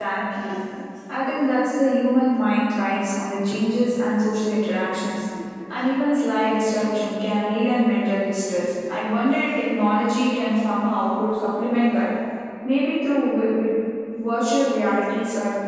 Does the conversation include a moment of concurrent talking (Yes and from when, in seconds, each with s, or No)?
No